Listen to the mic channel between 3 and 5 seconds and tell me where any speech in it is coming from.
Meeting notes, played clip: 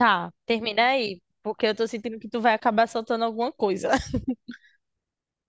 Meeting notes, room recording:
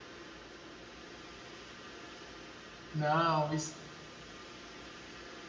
user only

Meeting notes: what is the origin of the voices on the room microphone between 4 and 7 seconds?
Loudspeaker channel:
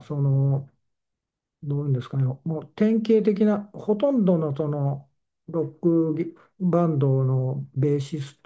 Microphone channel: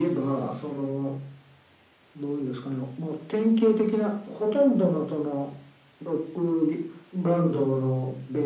echo only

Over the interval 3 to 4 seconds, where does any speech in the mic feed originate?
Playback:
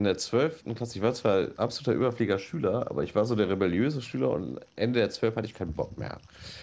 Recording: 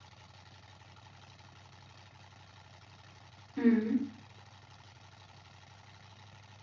user only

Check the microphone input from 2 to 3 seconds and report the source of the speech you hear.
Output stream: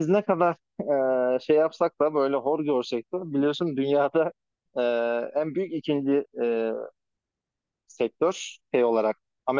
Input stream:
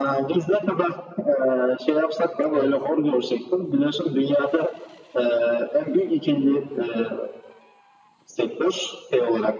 both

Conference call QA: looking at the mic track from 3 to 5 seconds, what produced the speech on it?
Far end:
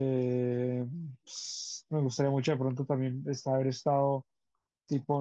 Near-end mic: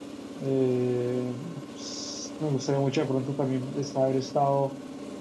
echo only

